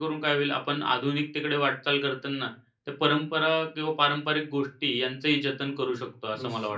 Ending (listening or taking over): taking over